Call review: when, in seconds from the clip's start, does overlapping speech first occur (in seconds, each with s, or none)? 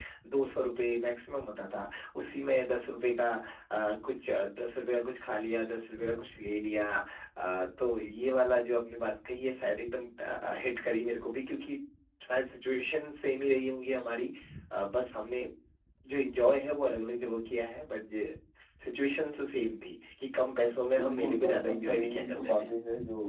20.9 s